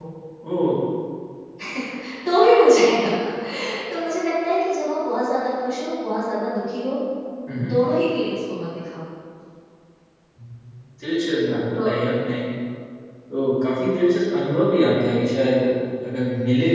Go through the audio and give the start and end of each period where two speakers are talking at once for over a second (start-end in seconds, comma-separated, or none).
none